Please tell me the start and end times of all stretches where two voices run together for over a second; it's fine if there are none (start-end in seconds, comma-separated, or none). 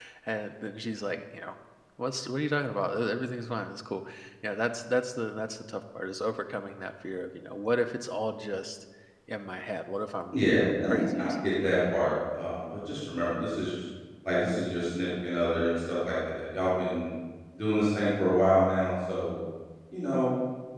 10.3-11.7